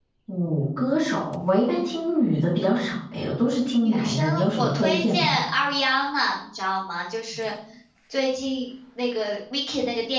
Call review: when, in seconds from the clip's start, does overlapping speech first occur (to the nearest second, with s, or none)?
4 s